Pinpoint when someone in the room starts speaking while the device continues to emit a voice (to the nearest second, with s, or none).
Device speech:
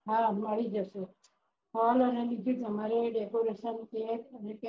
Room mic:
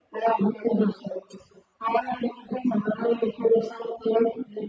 none